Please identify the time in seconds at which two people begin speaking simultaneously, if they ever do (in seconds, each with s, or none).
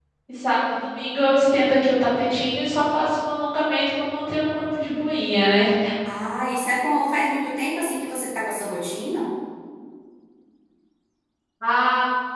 none